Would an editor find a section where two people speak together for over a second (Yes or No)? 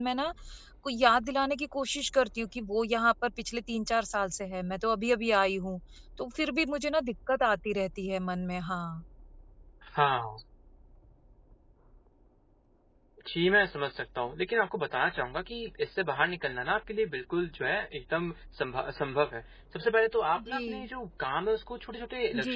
No